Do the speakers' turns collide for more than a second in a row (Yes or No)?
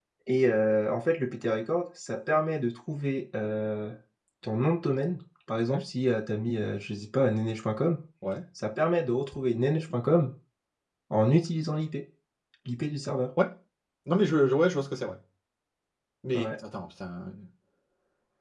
No